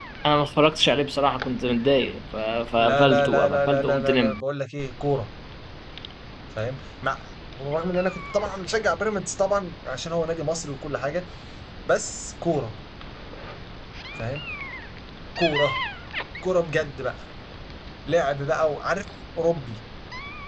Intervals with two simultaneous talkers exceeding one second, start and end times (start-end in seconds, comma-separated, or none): 2.9-4.4